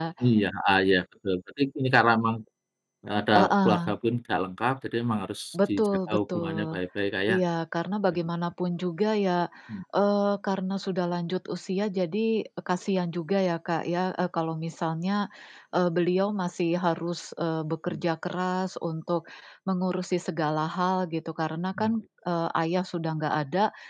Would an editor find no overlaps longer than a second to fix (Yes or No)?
No